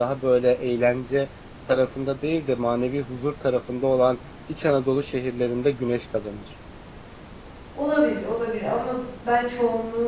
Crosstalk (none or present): none